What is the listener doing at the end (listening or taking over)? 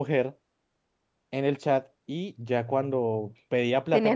listening